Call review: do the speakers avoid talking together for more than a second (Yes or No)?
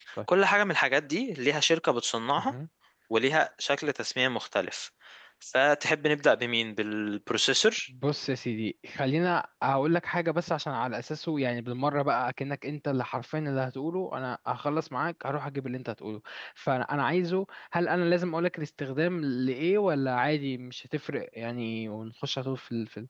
Yes